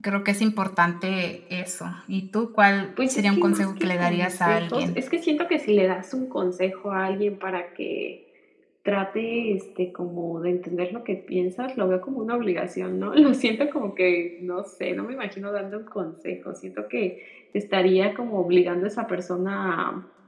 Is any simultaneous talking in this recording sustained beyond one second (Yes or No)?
Yes